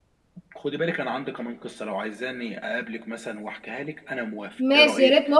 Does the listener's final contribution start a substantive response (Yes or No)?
Yes